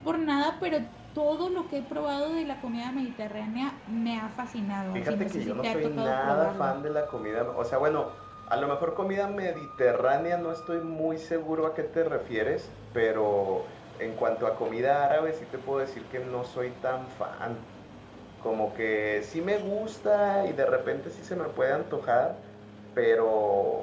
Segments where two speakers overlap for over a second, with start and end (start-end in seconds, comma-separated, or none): 4.9-6.8